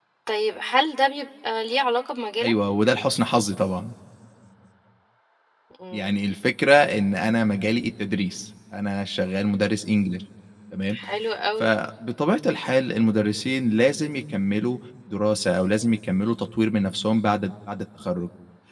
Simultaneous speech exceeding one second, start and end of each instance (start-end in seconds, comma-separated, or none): none